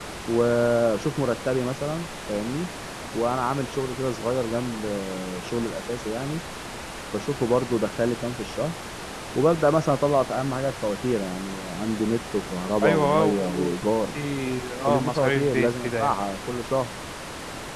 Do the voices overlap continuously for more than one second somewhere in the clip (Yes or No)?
Yes